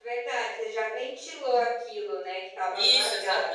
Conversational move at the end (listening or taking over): taking over